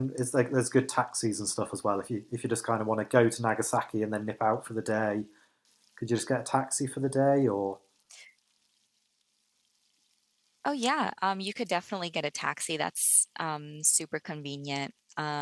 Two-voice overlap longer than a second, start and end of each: none

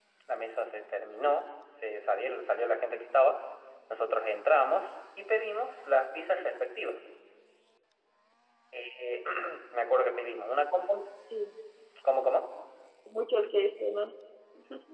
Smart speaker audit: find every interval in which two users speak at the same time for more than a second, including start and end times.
none

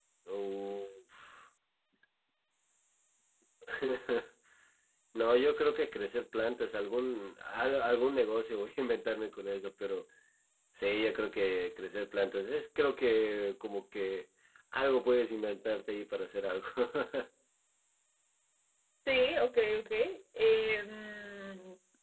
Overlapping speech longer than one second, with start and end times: none

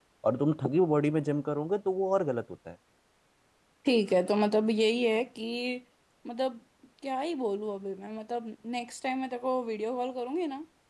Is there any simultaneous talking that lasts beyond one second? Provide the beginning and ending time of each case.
none

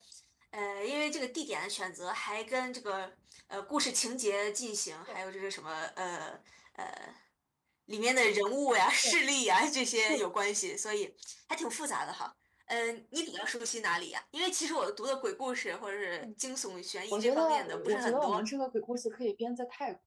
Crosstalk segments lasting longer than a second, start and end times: 17.1-18.4

